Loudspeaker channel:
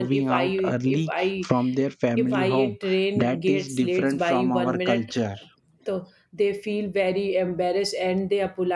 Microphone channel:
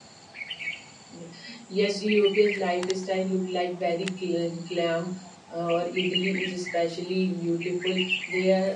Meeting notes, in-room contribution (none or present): present